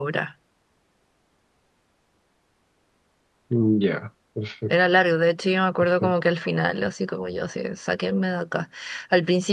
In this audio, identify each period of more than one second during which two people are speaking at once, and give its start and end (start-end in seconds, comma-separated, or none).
none